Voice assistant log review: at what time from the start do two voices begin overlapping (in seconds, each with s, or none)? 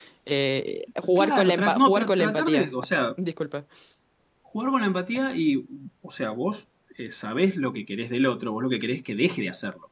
1.2 s